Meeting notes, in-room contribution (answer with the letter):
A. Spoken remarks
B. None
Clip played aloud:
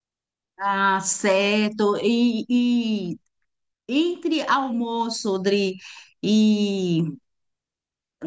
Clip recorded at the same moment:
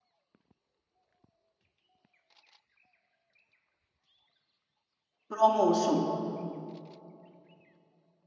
A